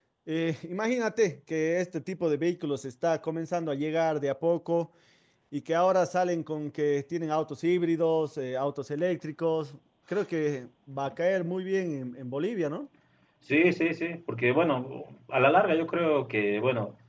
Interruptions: none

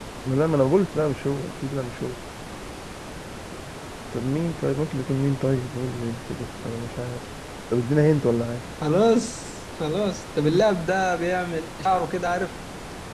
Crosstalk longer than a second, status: none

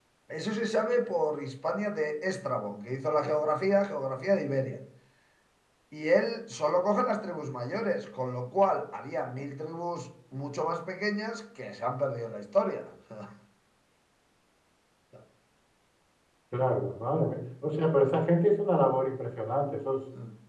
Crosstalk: none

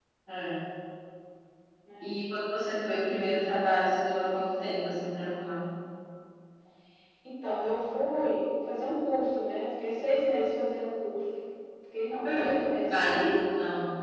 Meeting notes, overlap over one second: present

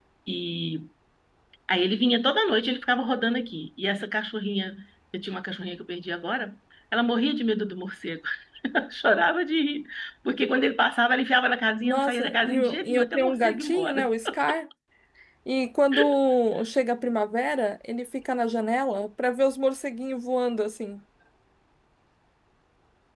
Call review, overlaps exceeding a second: present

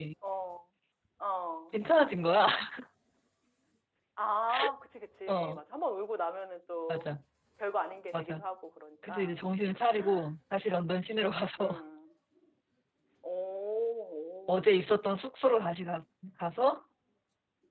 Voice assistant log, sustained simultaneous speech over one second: none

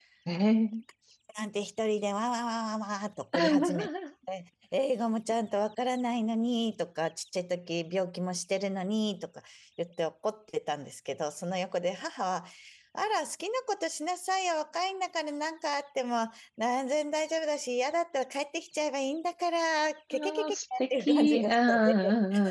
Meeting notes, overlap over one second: present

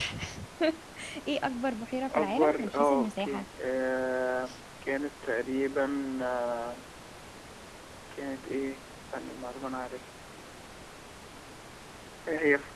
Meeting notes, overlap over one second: present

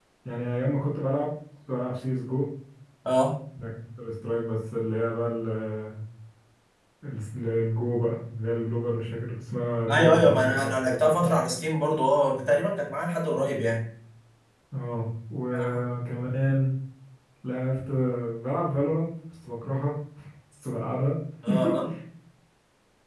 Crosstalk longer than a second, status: present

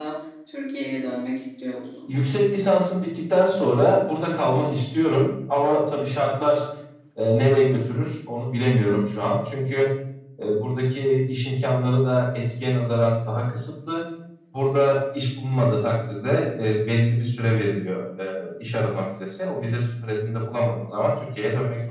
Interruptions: none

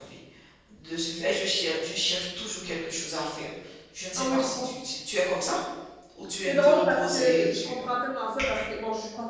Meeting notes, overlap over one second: present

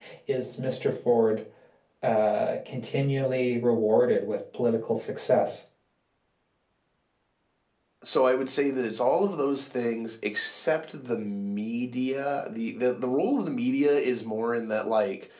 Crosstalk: none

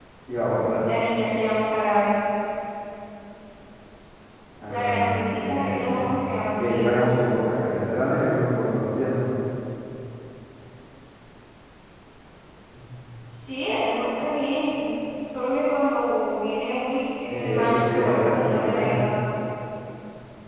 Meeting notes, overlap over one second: present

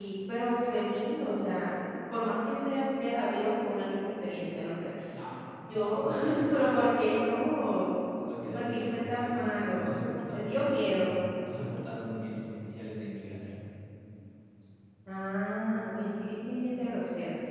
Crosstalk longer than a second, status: present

